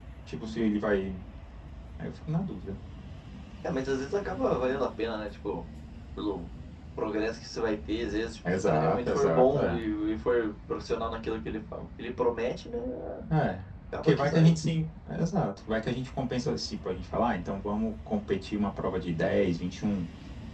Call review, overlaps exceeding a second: present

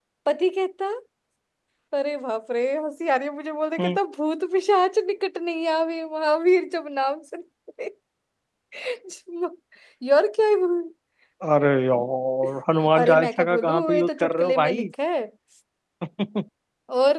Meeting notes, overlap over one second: present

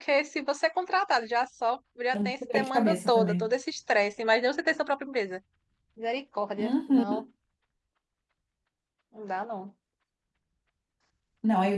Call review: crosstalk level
present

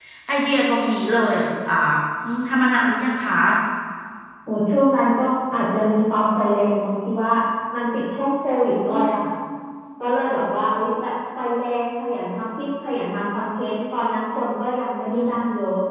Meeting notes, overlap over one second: none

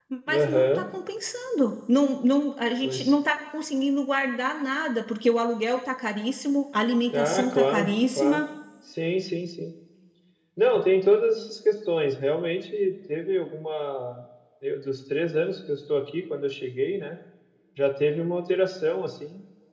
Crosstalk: present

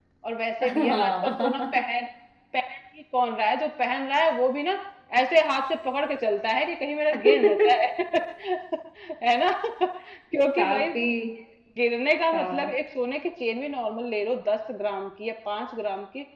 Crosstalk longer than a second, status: present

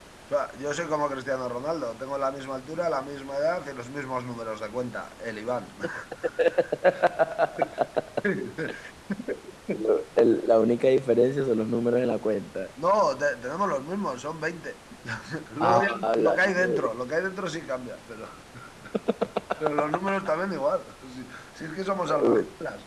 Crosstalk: present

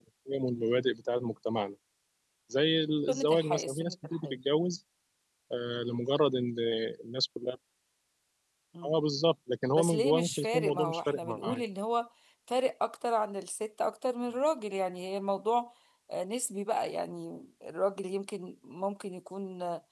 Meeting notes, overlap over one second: present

